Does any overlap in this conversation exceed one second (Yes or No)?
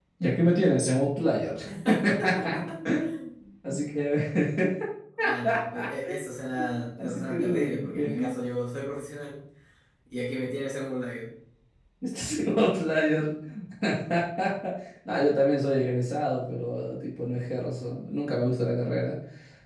Yes